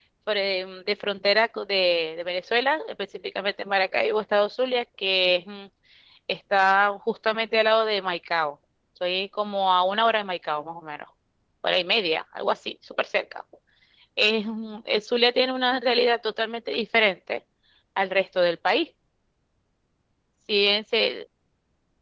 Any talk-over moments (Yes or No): No